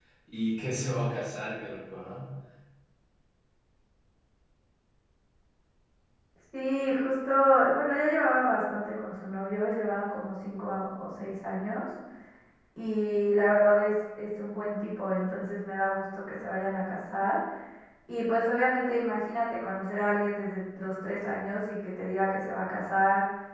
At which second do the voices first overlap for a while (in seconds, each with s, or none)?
none